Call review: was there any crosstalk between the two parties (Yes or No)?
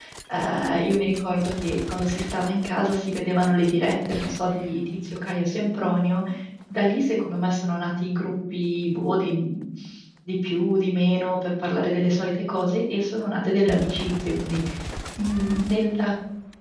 No